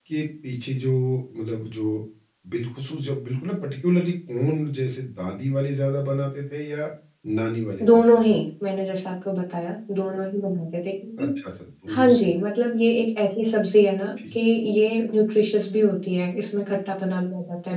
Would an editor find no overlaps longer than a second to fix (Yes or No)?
Yes